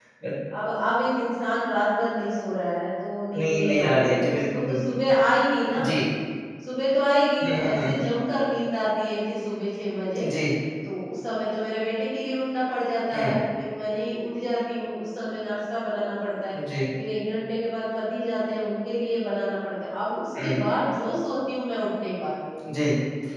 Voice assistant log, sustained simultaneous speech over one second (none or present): present